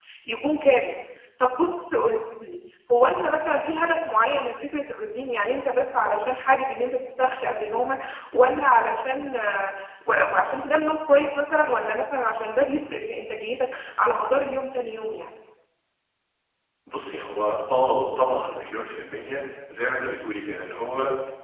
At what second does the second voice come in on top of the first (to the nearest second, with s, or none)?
none